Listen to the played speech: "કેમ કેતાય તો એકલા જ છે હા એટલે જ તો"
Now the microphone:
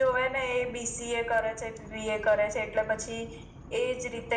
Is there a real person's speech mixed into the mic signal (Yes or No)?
Yes